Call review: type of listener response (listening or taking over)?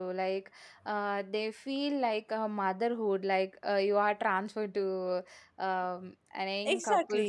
taking over